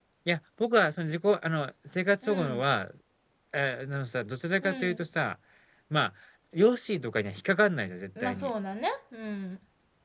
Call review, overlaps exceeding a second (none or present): none